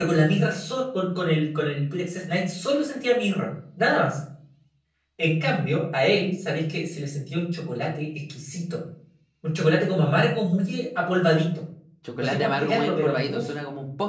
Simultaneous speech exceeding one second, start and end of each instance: 12.2-13.5

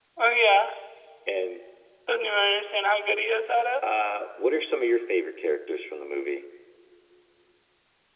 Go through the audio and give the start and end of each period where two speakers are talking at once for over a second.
none

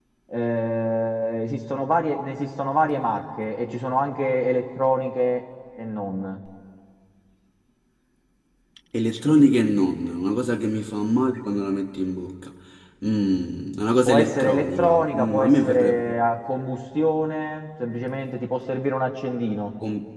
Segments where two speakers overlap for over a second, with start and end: 14.0-16.1

